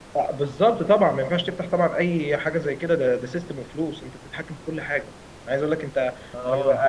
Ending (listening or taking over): listening